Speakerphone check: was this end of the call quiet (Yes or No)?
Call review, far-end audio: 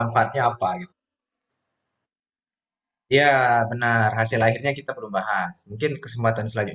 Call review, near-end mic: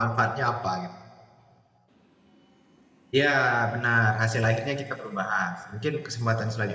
Yes